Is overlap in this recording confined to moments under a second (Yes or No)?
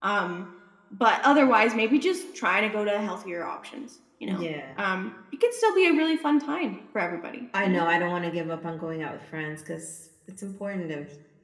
Yes